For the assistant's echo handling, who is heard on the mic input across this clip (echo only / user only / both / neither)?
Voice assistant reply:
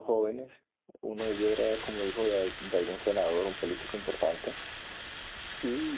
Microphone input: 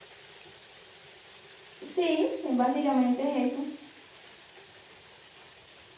user only